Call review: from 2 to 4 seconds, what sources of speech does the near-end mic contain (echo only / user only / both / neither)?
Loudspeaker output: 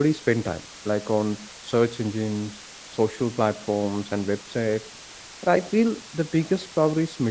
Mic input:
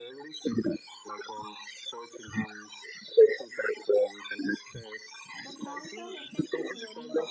echo only